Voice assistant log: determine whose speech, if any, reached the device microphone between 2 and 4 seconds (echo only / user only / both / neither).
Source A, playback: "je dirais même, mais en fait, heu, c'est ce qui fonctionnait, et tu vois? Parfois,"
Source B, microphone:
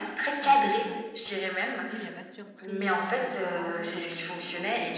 both